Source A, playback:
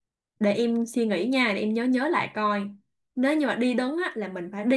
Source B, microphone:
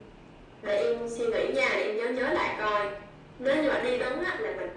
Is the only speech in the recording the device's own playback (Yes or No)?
Yes